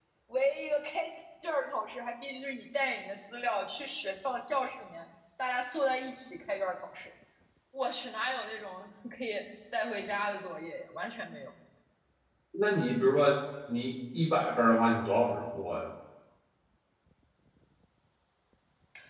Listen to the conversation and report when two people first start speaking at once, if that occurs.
none

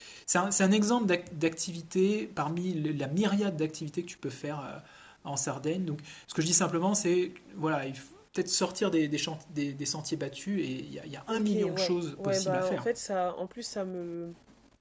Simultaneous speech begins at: 11 s

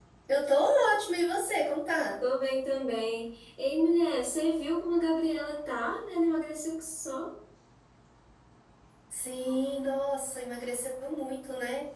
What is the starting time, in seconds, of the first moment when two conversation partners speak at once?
none

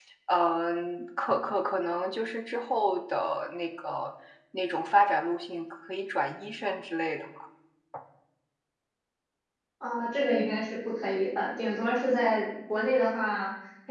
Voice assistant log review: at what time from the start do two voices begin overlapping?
none

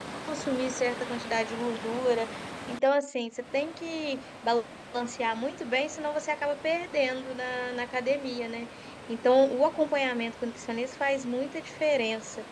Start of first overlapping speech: none

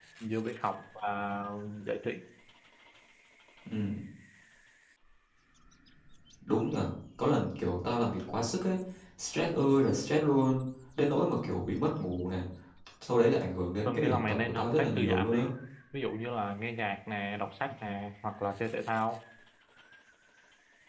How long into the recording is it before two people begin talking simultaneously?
14 s

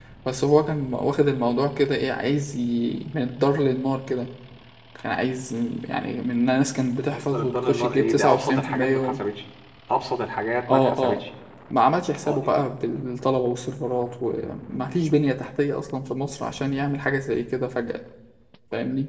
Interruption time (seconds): 7 s

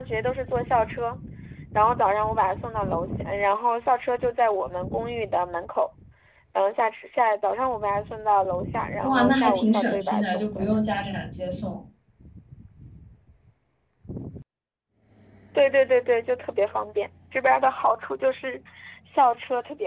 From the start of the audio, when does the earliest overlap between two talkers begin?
9 s

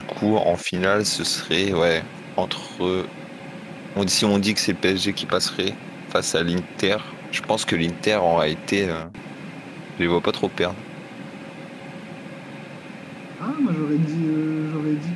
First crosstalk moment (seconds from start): none

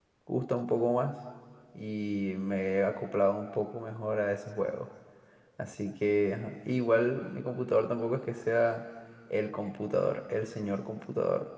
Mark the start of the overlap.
none

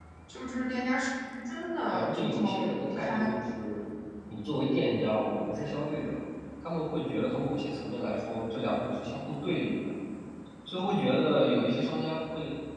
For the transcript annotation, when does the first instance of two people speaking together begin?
2 s

